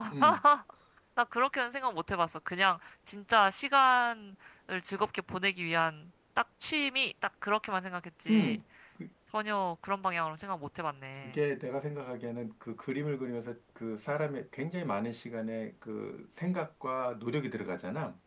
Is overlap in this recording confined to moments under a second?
Yes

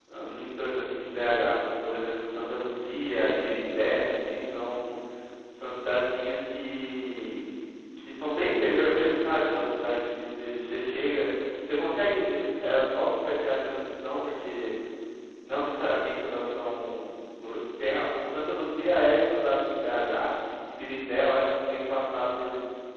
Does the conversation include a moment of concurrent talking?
No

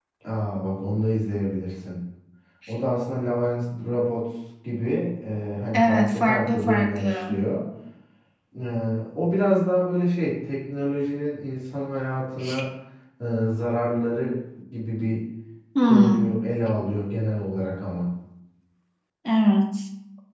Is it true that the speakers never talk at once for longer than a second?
No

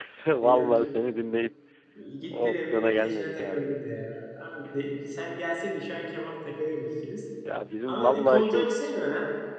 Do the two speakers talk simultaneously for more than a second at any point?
Yes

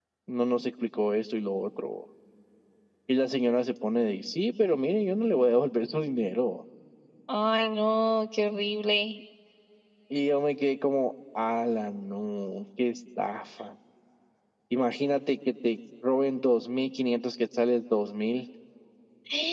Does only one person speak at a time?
Yes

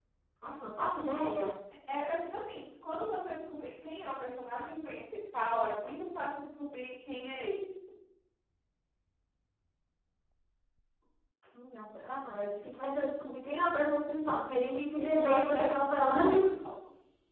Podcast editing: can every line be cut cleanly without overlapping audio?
No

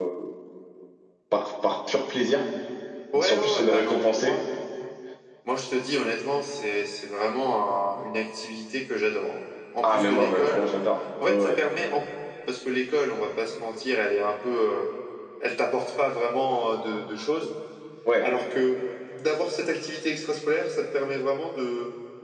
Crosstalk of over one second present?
Yes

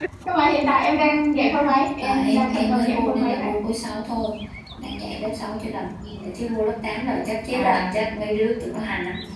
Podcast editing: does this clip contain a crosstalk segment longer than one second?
Yes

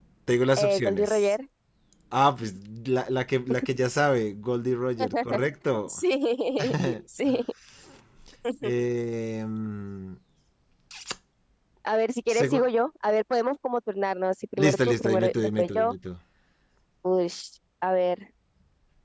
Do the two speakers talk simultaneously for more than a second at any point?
Yes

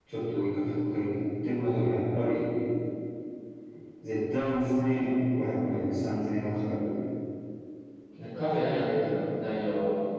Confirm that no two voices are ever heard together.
Yes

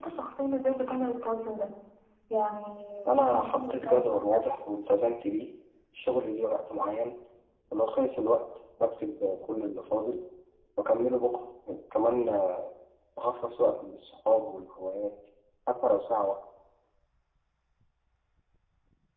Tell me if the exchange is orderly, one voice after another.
No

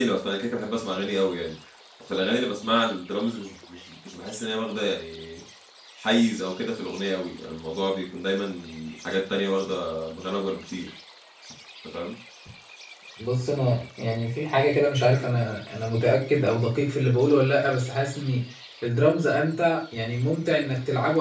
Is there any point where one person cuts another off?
No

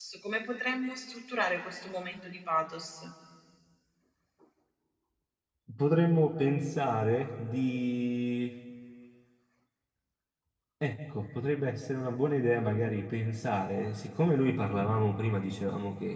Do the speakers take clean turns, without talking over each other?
Yes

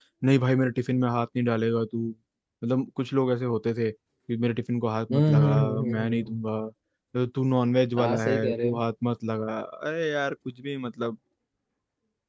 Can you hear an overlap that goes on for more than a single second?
Yes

